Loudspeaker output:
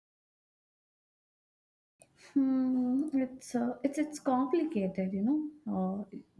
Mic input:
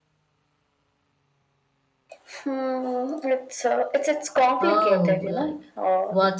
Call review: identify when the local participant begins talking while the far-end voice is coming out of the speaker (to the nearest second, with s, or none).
5 s